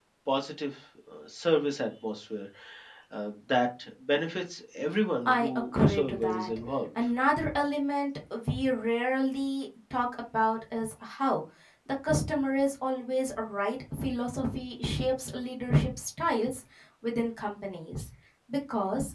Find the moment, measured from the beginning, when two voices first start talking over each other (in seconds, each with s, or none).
5.2 s